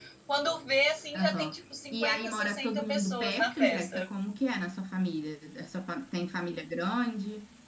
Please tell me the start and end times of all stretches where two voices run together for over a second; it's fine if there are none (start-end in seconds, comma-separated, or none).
1.9-4.1